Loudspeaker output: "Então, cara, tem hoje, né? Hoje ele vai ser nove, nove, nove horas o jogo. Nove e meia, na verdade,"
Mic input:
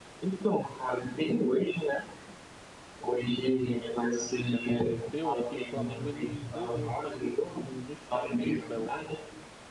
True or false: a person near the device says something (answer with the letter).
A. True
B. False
A